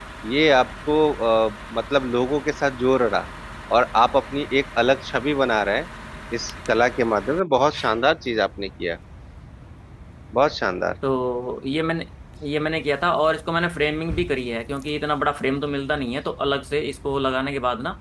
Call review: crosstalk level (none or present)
none